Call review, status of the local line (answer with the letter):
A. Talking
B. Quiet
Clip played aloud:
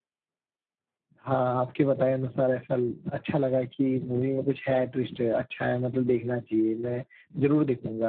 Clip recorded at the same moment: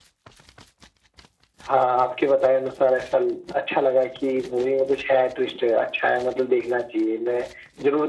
B